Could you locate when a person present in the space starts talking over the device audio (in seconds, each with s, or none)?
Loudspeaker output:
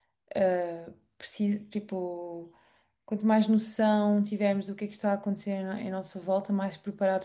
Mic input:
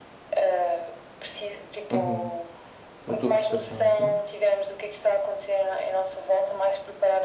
1.9 s